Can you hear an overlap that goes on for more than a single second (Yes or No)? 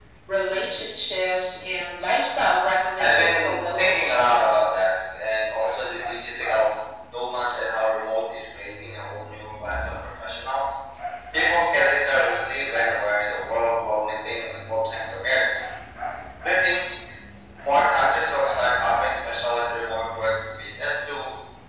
Yes